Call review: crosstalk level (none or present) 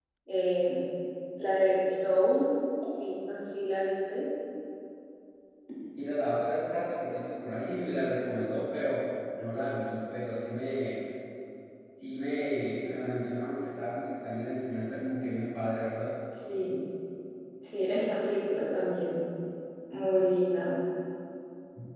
none